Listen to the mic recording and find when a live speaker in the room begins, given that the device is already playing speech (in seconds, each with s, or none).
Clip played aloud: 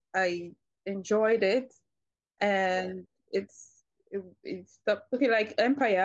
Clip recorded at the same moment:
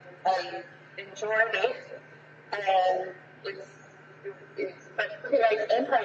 none